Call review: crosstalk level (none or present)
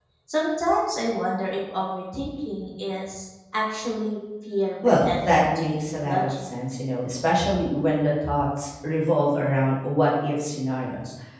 present